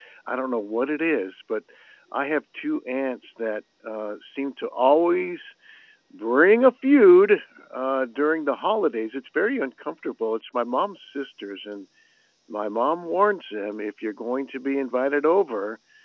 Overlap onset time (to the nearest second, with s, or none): none